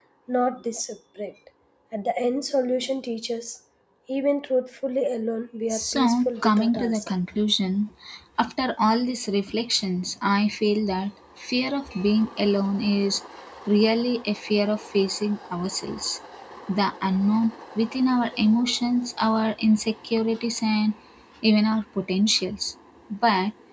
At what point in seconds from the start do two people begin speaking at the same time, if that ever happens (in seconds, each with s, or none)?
5.7 s